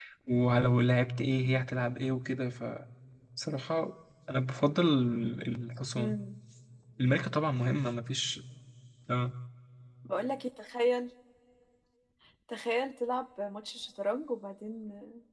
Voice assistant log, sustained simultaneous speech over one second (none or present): none